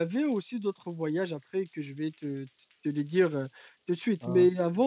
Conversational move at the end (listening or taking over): listening